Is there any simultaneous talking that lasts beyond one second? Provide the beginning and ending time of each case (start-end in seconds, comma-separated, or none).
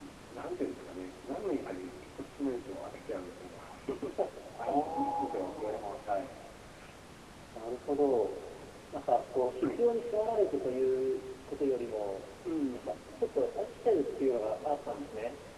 4.6-5.9